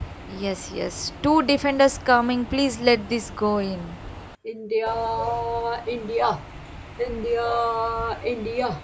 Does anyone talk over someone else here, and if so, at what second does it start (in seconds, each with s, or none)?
none